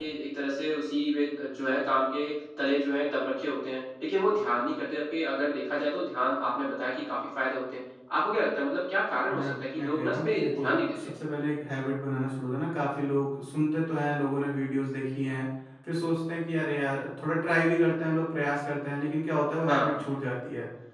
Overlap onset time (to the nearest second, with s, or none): 9 s